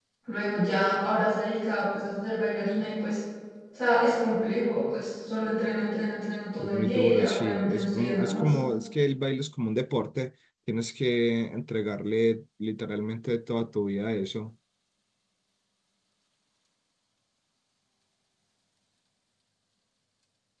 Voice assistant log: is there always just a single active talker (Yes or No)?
No